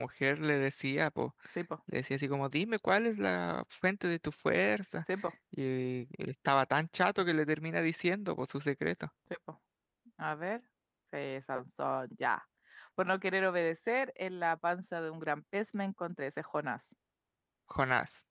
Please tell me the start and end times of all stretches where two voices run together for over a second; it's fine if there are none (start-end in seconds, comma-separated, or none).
none